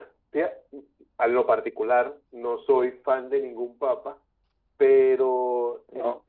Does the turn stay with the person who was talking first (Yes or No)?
Yes